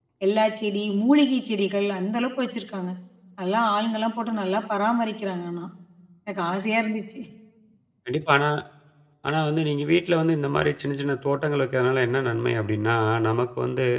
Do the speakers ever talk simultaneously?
No

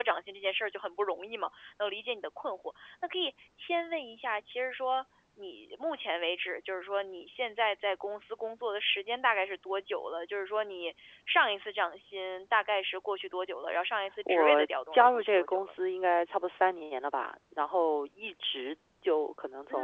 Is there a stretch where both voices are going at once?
Yes, from 14.3 s

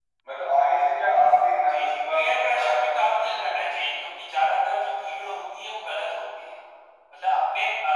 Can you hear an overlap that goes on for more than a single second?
Yes, from 1.6 s

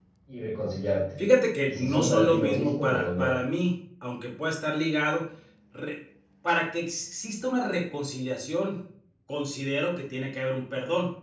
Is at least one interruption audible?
Yes, from 1.6 s

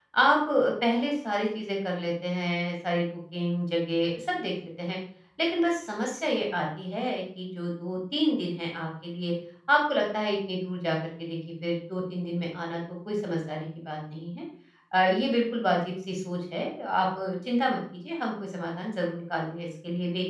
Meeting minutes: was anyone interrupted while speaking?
No

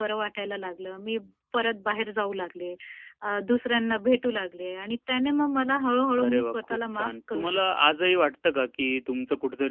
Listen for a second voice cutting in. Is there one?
Yes, from 6.2 s

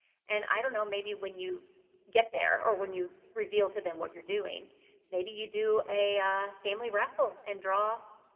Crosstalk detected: No

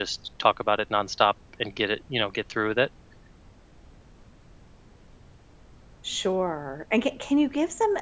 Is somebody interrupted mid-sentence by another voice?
No

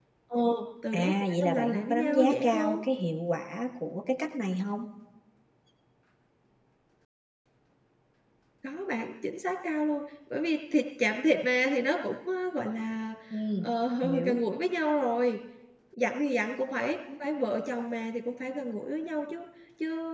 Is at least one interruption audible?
Yes, from 0.9 s

